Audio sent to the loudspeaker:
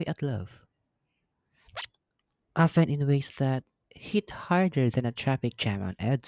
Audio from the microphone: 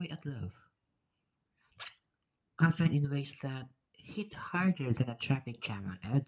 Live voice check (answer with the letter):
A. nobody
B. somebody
A